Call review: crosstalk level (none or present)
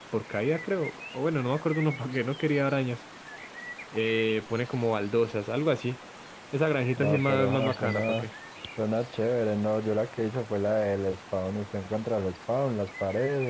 present